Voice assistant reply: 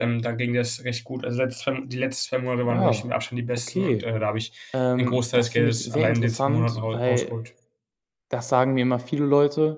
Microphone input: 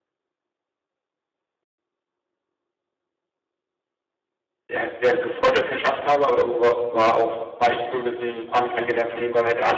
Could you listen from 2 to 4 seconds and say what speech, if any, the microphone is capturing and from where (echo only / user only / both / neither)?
neither